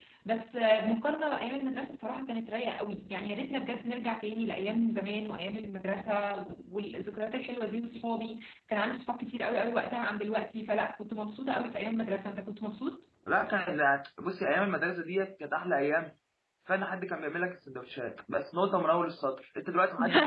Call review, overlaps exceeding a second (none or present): none